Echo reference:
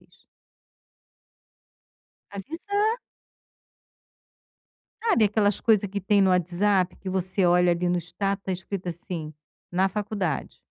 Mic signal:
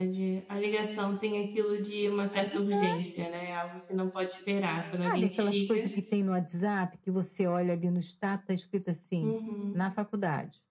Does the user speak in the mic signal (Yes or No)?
Yes